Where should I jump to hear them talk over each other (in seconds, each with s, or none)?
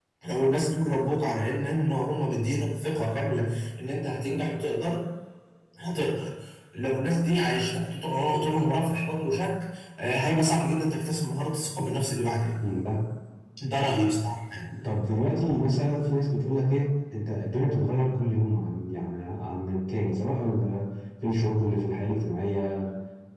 none